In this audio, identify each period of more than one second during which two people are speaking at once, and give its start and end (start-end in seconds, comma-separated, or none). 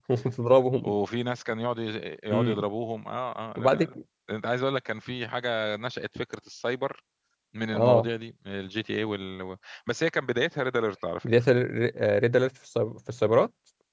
none